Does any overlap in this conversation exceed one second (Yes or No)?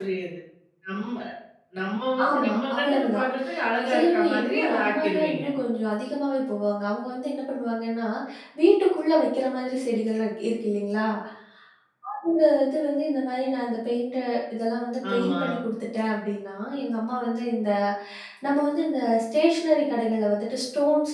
Yes